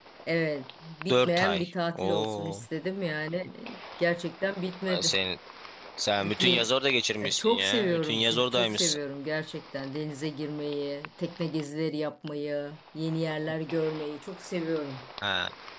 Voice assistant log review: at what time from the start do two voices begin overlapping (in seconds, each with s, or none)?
1.1 s